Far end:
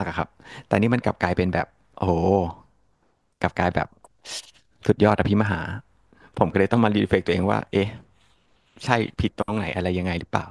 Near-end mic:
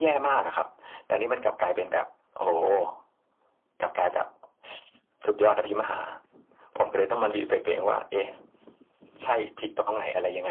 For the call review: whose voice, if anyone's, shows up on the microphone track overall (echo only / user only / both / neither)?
echo only